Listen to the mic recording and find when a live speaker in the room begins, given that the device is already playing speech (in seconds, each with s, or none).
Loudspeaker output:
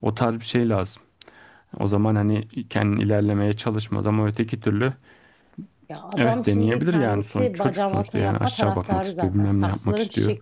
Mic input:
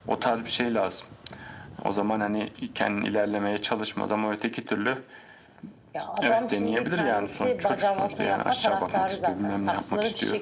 none